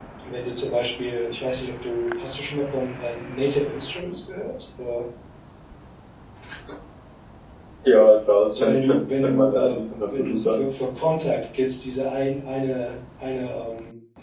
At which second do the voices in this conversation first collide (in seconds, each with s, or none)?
8.5 s